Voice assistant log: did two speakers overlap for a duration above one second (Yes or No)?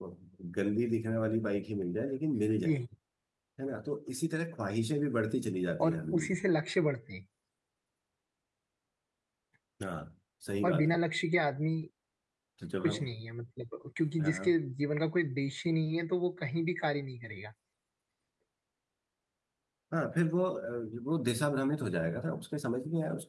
No